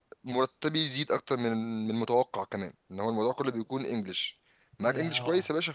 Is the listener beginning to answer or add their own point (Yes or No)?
No